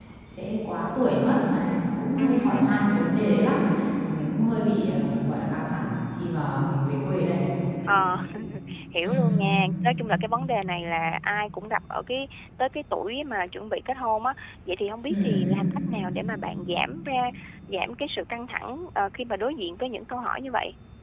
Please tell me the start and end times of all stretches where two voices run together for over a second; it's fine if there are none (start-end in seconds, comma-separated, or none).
none